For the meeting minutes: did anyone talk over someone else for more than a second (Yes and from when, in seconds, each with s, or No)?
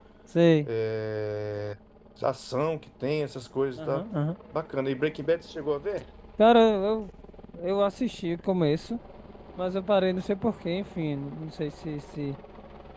No